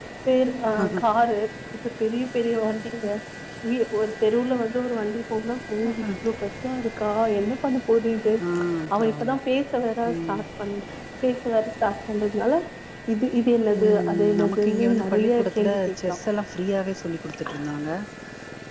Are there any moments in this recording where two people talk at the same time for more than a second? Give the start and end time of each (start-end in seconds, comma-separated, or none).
13.8-16.2